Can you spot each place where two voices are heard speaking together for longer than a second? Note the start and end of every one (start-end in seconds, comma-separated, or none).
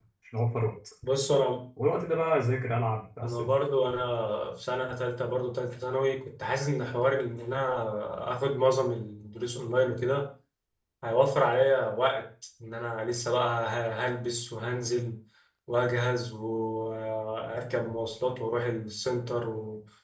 none